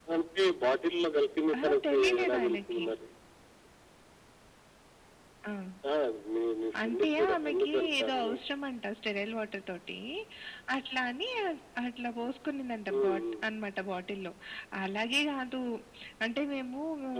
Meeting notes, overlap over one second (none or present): present